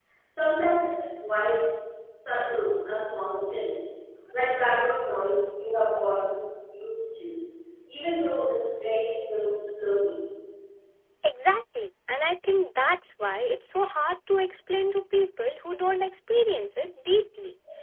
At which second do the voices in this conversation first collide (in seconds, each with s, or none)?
none